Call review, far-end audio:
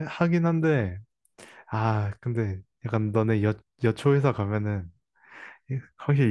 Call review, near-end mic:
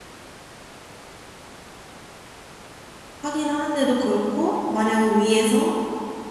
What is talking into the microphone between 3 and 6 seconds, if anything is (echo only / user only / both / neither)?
user only